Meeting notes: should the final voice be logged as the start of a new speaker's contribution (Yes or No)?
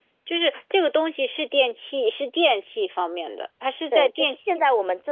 Yes